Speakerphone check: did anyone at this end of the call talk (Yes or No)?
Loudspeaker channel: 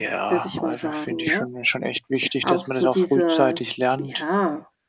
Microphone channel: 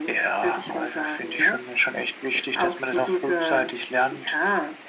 No